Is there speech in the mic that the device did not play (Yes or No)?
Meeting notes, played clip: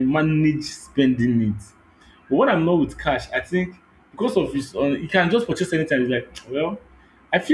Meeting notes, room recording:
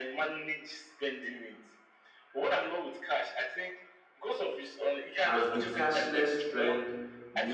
Yes